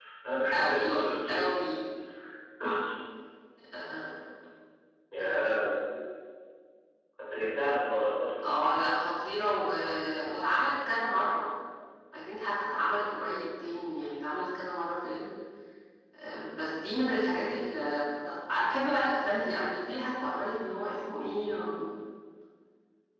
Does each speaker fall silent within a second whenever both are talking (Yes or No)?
Yes